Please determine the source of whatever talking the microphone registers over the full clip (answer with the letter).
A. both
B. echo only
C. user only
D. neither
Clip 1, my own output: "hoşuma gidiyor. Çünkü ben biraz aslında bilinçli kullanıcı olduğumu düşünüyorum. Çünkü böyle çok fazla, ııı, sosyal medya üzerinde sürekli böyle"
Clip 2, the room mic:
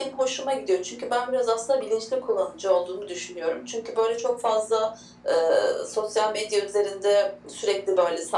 B